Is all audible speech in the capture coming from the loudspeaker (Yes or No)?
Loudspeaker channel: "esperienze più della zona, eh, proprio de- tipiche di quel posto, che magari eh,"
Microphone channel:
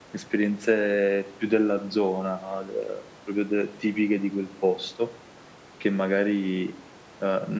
Yes